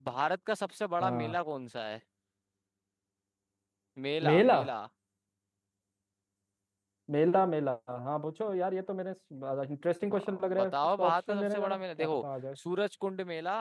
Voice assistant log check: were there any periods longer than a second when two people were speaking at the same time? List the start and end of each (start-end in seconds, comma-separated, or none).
10.1-12.2